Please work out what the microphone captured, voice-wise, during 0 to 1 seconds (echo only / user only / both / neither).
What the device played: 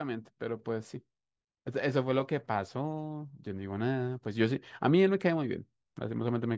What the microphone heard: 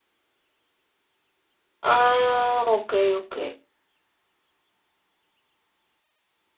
neither